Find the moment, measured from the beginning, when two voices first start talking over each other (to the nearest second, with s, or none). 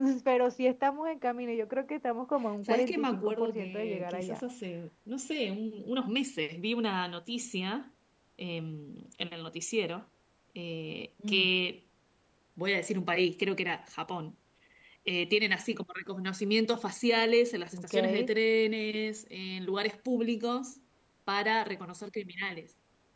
3 s